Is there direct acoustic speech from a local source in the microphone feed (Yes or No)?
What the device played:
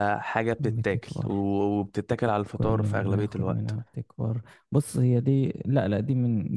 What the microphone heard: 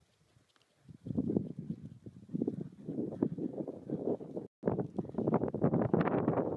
No